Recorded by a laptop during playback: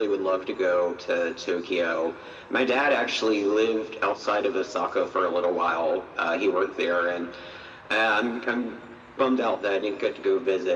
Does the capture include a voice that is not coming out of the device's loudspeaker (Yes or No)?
No